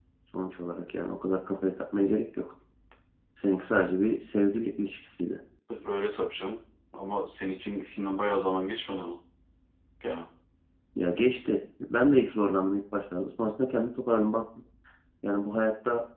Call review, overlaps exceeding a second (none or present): none